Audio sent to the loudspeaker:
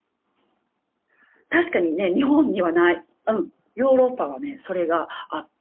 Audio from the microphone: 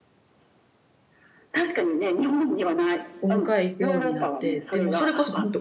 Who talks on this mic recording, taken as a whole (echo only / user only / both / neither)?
both